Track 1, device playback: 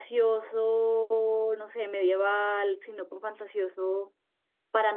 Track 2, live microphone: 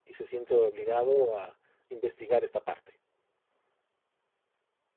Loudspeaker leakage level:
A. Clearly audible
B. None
B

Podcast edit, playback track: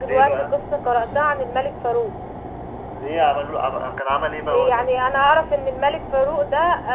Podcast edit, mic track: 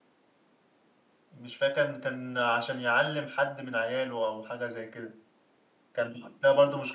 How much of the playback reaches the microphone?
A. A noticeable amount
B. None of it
B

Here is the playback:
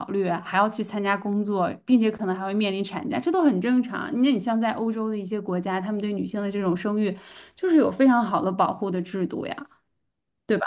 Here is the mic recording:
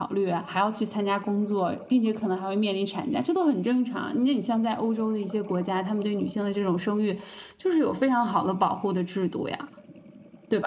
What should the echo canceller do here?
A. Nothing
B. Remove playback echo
B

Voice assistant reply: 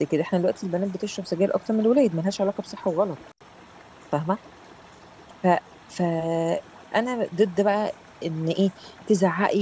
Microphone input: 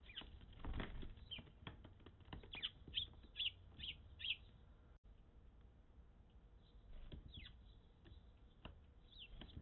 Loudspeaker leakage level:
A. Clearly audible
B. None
B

